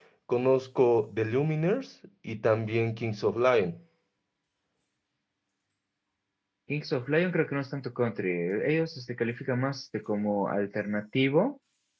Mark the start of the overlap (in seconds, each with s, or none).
none